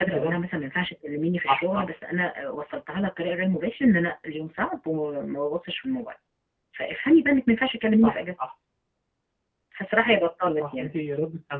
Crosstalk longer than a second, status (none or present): none